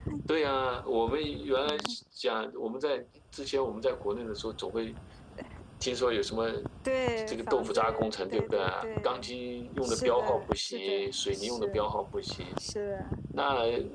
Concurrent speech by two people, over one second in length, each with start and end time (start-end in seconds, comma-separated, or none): 7.2-9.3, 9.8-11.7